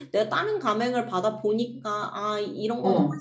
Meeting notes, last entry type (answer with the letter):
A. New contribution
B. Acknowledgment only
B